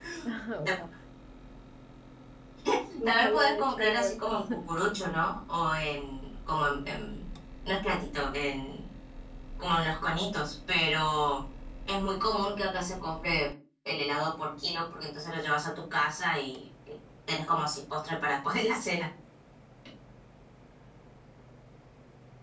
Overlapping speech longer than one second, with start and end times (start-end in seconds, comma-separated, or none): 3.0-4.6